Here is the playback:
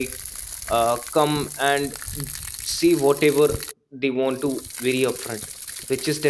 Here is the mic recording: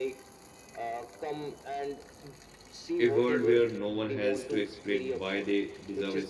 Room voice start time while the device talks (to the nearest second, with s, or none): 3 s